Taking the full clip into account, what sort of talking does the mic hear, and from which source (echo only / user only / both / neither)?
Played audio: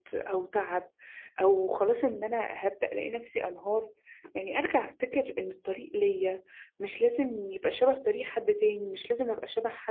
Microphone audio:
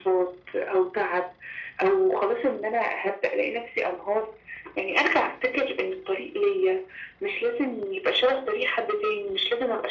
echo only